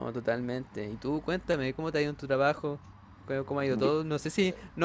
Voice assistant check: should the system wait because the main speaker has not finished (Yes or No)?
Yes